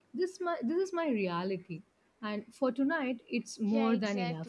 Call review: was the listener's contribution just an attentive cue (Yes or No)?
No